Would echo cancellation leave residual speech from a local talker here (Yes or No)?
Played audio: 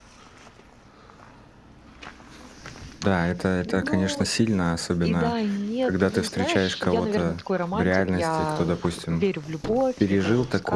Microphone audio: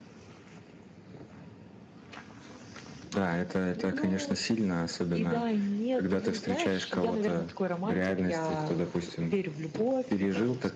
No